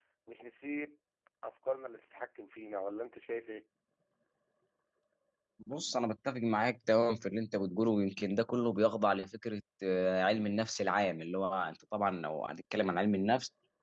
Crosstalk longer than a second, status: none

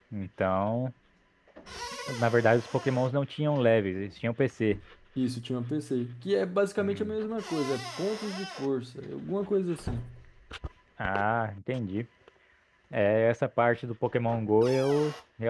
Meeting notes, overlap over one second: none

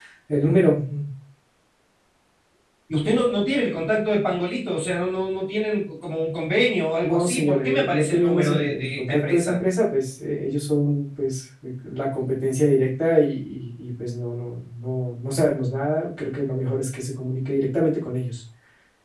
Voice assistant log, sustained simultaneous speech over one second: present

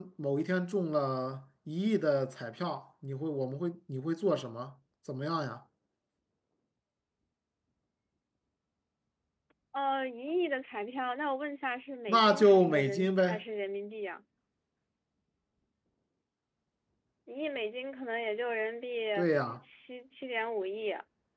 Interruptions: present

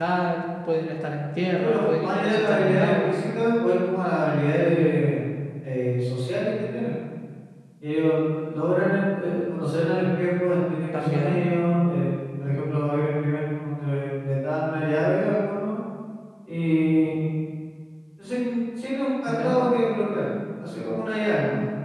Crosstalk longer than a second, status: present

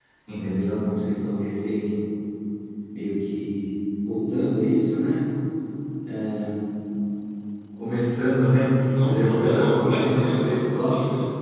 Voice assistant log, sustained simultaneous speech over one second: present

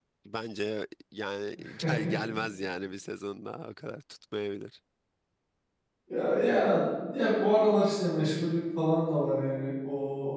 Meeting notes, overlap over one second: none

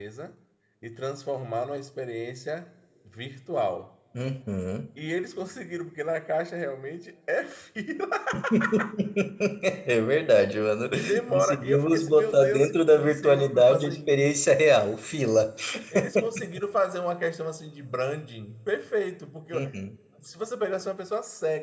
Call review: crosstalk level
present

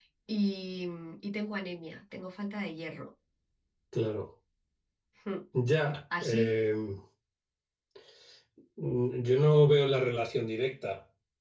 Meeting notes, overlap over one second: none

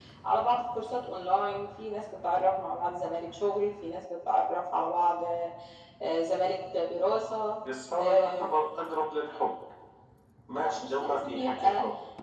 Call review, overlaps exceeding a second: present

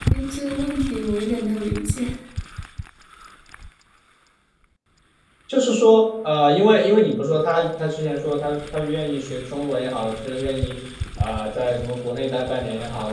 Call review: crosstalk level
none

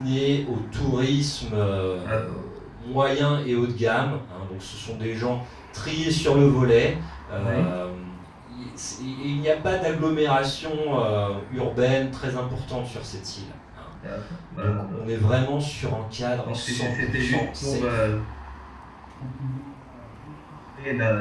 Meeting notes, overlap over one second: present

